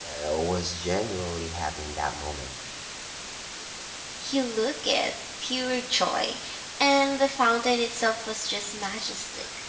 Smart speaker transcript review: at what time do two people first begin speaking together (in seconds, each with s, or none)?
none